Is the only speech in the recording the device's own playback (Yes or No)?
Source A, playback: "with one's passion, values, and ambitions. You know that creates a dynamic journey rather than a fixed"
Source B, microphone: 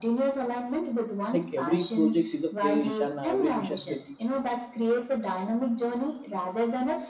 No